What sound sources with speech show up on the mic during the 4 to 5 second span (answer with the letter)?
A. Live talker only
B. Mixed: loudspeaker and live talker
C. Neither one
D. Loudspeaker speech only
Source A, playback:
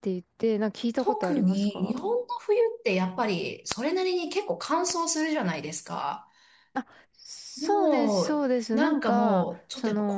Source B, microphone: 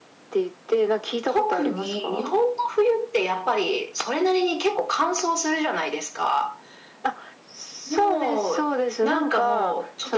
D